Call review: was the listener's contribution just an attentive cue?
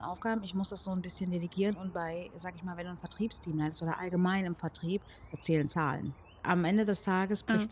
Yes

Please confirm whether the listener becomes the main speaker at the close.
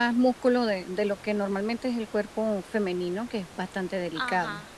Yes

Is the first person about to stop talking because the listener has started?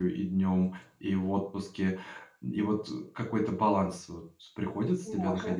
Yes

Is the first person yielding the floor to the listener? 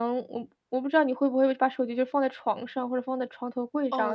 Yes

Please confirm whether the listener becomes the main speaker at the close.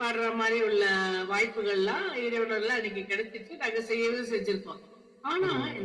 No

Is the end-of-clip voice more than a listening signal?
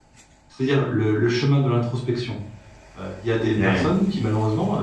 No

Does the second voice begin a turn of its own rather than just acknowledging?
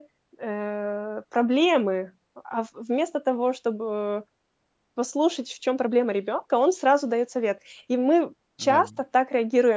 No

